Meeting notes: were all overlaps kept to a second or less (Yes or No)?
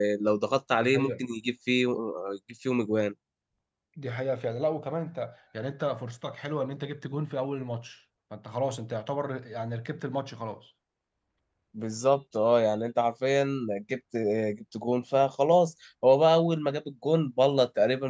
Yes